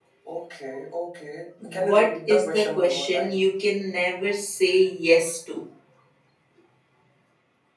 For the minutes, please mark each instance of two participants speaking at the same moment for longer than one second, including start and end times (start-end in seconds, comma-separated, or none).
1.6-3.4